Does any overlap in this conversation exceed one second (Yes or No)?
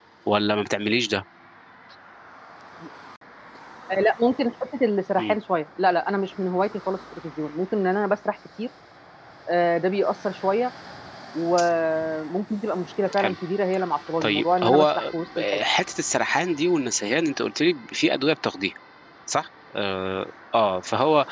Yes